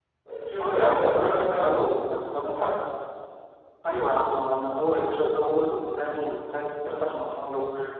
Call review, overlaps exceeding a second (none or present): present